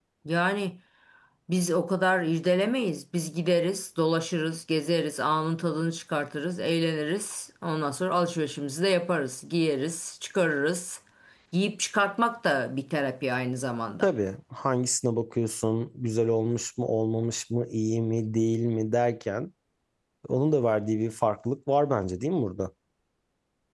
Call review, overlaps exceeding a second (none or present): none